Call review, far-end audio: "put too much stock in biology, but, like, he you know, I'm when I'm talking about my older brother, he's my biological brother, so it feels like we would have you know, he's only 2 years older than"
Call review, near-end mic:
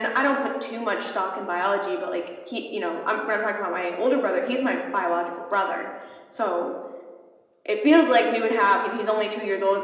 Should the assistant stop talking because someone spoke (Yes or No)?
No